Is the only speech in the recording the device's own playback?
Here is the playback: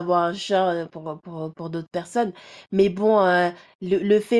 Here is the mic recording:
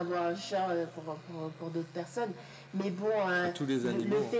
No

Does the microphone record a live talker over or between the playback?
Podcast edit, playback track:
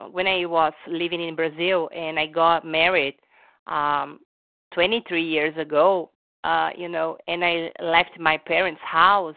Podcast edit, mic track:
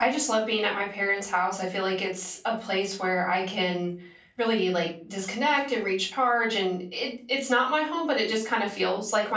Yes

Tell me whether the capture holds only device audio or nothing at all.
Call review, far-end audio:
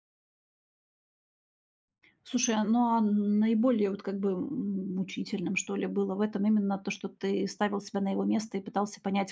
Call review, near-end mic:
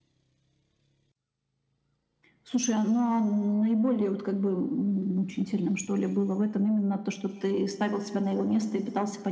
Yes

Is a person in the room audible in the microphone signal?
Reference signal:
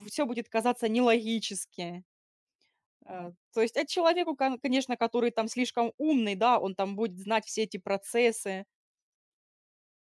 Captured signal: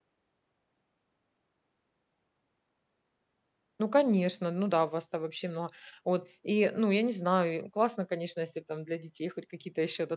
Yes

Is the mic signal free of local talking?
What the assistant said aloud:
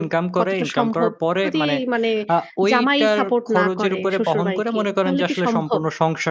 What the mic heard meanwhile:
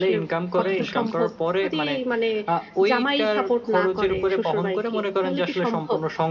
No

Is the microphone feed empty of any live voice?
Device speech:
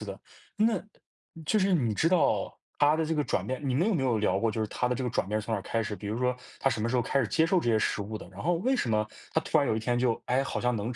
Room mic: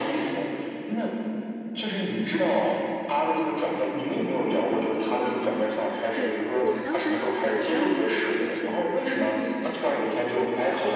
No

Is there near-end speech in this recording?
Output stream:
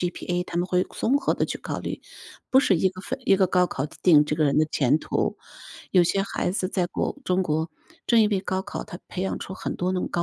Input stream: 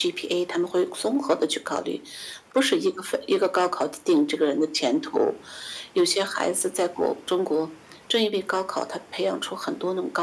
No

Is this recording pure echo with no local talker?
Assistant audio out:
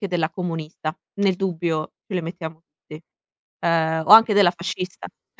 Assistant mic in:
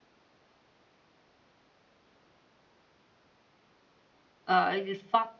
No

